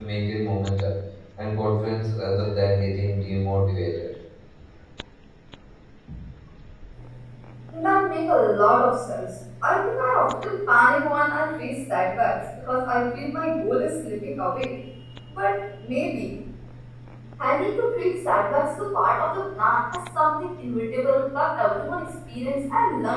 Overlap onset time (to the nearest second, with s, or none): none